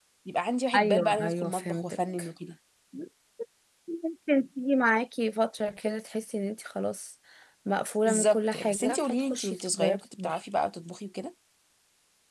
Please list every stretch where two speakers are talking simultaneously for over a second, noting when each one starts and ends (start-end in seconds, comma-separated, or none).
0.7-2.0, 8.1-10.3